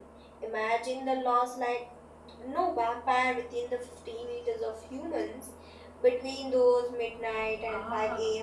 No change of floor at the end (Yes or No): No